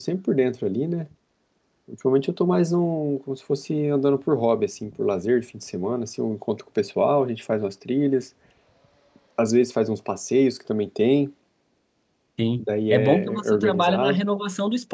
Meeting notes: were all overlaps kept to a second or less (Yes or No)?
No